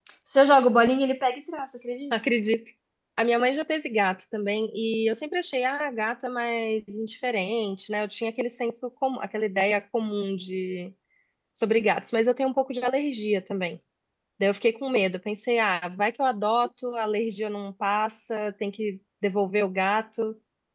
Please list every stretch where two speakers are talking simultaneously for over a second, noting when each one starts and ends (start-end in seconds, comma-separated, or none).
none